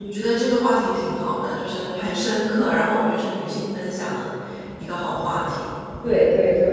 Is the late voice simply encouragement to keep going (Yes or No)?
No